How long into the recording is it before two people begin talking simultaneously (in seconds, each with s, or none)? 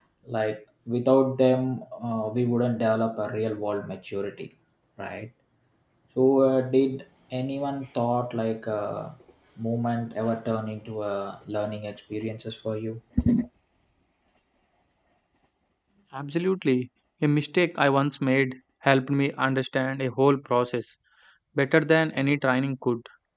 none